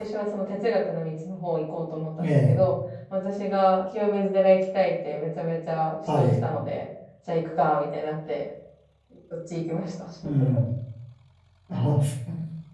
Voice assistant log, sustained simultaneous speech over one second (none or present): none